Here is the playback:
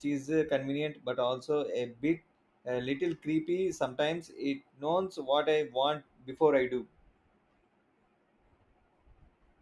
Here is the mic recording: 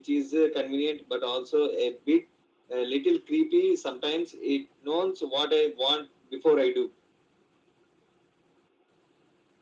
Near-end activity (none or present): none